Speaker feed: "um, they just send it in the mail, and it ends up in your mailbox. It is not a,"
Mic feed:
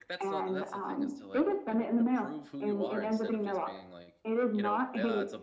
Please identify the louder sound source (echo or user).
echo